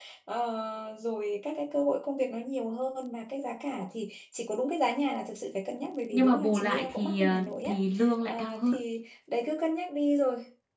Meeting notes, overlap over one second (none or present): present